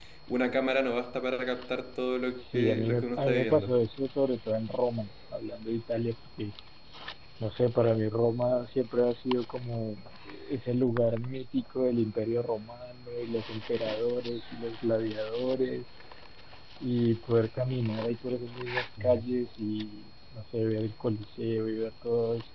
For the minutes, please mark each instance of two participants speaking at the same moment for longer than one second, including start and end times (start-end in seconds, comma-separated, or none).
2.5-3.8